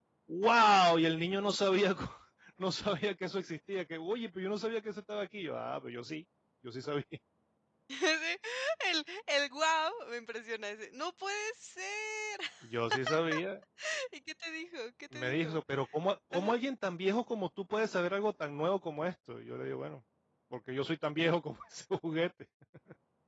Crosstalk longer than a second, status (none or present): none